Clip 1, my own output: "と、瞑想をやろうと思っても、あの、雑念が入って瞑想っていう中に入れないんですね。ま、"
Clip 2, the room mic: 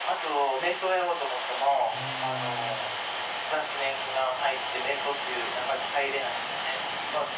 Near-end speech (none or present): present